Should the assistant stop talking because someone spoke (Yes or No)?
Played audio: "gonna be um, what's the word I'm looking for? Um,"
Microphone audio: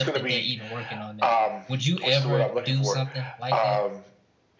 Yes